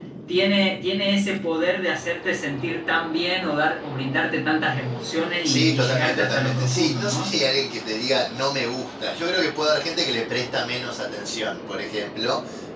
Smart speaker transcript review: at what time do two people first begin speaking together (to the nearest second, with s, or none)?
5 s